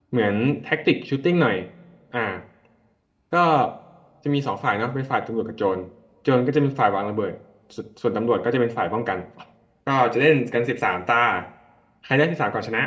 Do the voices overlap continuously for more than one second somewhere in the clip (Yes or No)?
No